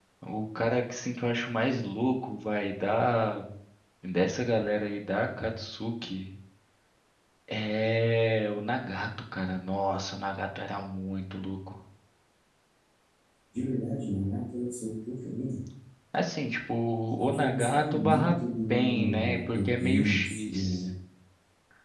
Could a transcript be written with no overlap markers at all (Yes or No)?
No